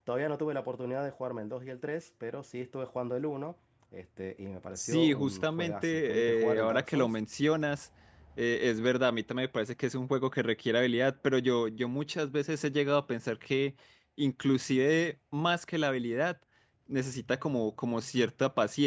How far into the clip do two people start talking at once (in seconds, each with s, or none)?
4.8 s